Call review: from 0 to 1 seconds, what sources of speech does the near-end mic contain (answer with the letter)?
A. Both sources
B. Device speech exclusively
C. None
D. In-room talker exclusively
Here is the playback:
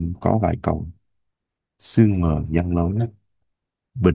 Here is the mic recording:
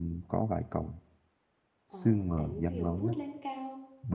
B